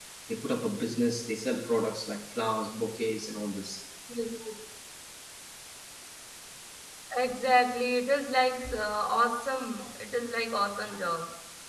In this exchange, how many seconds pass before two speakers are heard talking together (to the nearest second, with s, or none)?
none